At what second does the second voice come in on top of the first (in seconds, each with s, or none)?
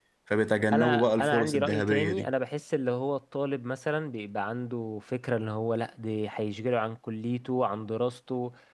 0.7 s